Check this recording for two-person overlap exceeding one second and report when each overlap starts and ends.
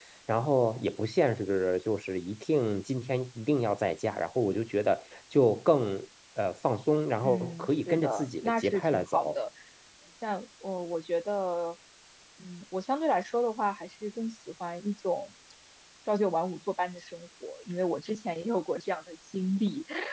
7.2-9.4

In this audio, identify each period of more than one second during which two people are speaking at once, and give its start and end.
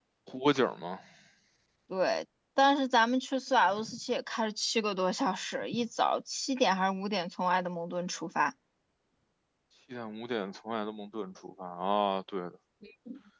none

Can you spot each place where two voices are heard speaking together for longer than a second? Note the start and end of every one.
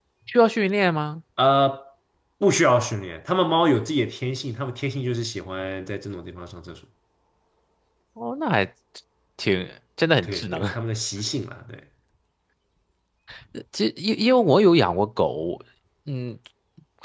none

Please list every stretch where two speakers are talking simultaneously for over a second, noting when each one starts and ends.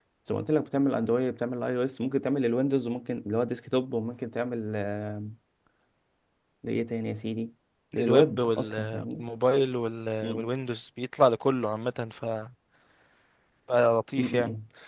7.9-9.2

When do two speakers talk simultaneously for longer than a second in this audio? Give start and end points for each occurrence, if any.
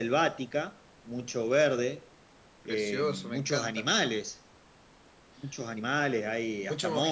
2.7-3.9

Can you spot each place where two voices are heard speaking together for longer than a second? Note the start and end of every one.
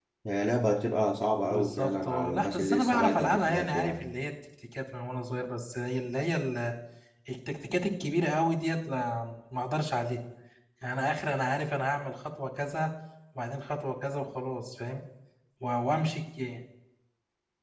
1.5-4.0

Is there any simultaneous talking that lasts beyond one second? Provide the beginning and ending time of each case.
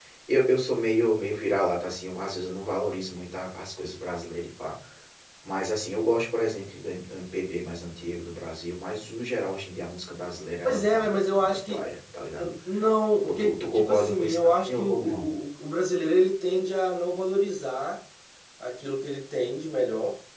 10.6-11.8, 13.2-15.3

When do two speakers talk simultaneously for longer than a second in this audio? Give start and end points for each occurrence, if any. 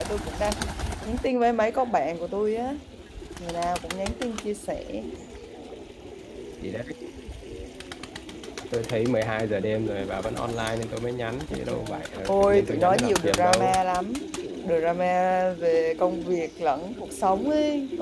11.5-13.8

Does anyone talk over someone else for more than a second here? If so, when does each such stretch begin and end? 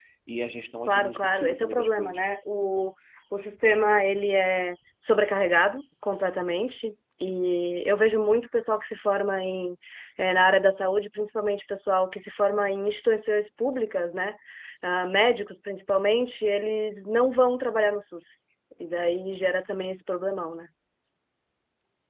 0.9-2.2

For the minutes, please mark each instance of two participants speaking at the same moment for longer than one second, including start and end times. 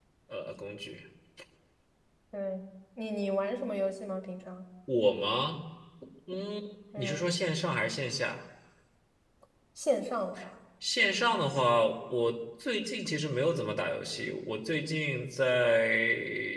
none

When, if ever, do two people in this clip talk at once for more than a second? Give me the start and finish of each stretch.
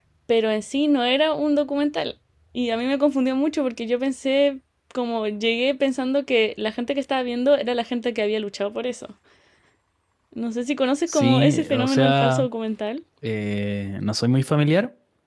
11.1-12.5

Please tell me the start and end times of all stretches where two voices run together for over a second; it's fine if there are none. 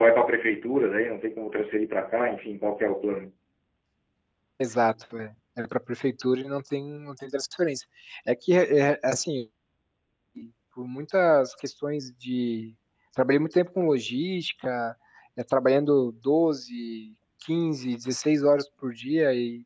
none

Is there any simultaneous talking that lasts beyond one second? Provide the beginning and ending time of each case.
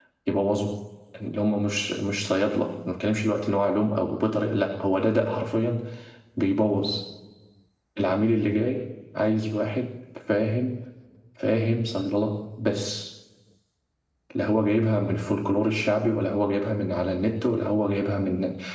none

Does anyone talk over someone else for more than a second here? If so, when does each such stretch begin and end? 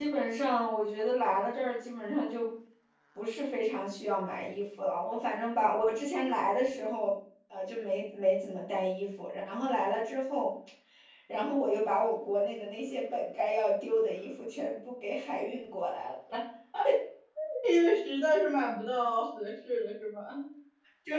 none

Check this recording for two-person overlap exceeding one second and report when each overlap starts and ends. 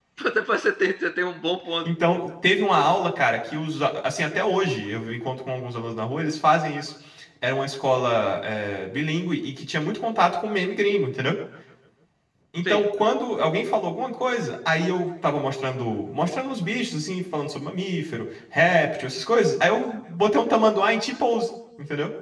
none

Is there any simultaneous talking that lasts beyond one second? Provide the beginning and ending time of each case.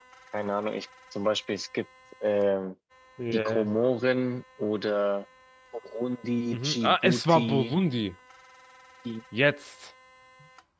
6.5-7.8

